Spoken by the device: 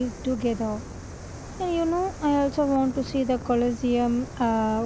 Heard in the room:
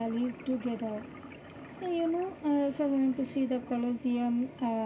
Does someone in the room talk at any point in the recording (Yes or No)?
No